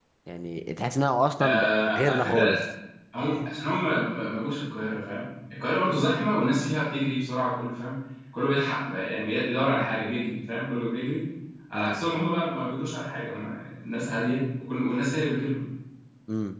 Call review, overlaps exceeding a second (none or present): present